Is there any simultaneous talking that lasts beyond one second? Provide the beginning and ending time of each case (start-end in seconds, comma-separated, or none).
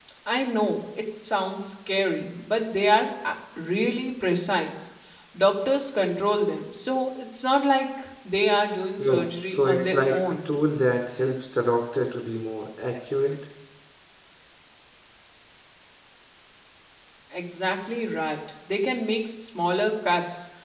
9.0-10.3